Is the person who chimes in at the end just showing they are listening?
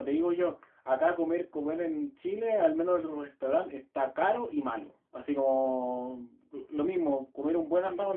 Yes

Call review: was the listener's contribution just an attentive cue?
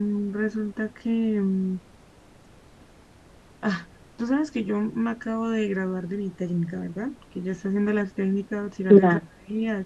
Yes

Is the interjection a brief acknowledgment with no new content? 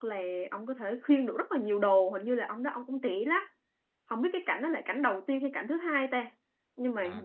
No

